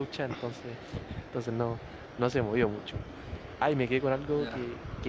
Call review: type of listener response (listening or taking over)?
listening